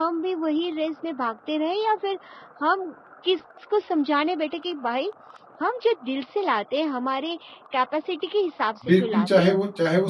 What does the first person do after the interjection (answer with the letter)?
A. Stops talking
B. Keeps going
A